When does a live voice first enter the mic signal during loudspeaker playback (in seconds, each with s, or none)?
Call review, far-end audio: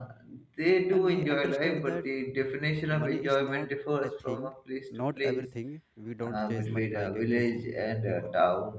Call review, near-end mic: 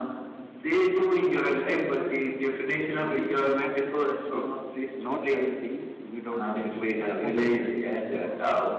7.0 s